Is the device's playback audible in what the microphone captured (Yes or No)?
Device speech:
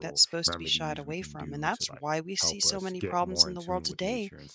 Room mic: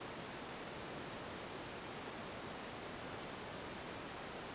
No